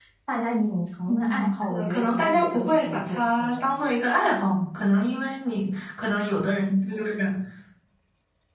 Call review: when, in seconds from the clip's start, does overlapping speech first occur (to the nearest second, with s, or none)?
1 s